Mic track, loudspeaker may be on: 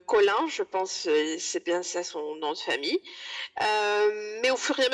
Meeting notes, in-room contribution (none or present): none